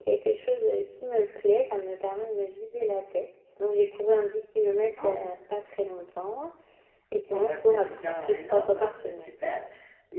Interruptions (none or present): present